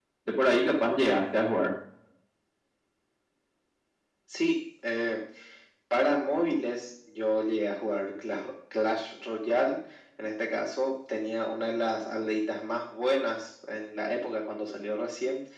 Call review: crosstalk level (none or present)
none